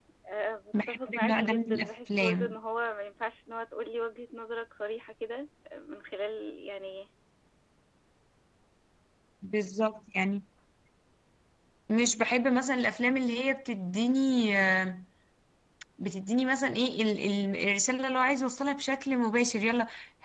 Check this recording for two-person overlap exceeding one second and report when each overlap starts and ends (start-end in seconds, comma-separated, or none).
0.9-2.5